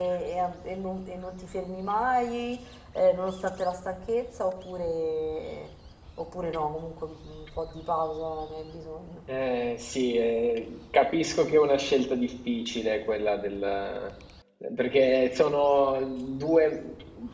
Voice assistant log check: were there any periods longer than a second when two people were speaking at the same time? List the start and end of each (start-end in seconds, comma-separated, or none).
none